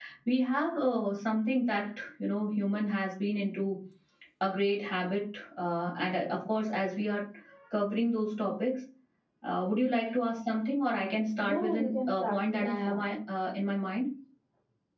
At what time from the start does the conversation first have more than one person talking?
11.4 s

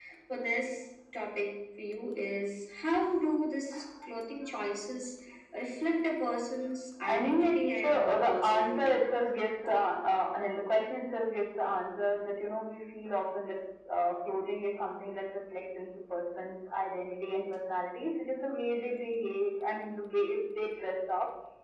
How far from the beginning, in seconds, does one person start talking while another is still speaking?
7.0 s

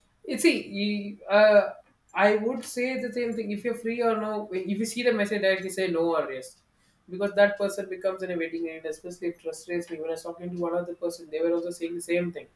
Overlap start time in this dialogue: none

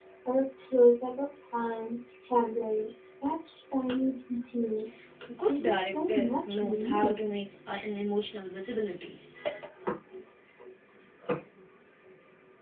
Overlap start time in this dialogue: 5.5 s

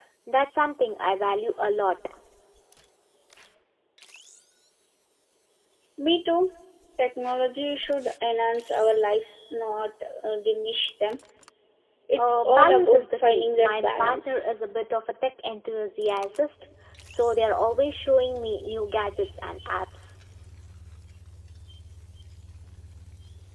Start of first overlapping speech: 12.2 s

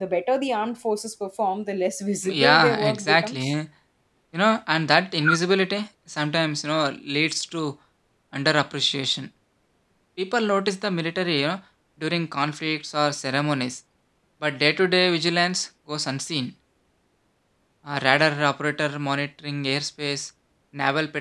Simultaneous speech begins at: 2.2 s

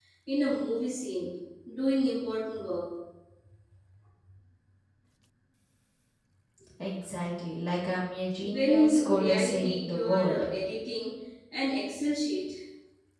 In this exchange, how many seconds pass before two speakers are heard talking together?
8.4 s

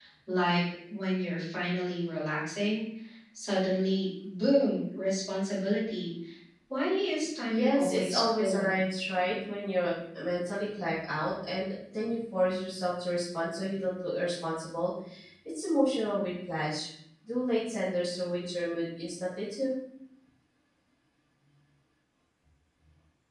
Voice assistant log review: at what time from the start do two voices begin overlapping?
7.5 s

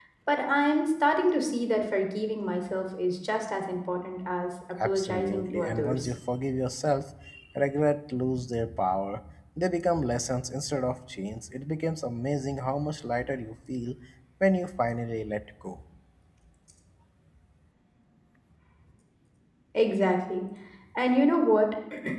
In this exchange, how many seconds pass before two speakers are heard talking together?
4.8 s

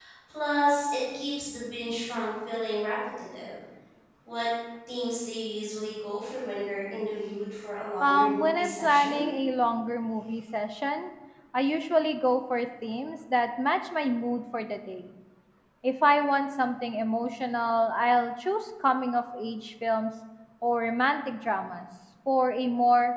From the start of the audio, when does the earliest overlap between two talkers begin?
8.0 s

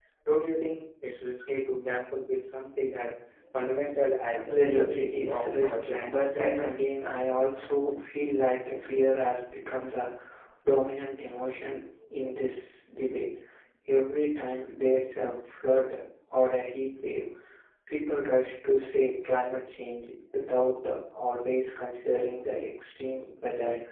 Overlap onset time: 4.4 s

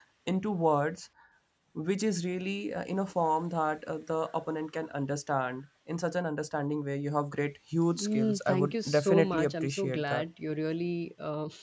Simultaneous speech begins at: 7.9 s

